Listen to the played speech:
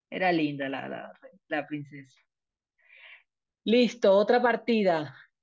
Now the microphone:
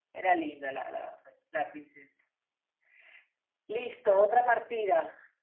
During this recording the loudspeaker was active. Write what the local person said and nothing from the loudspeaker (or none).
none